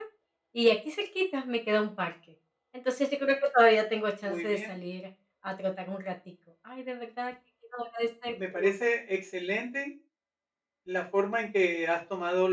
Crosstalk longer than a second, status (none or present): none